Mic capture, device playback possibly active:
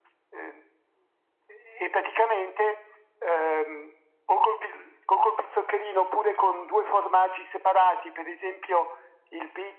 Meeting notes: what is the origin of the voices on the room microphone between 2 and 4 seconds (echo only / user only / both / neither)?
echo only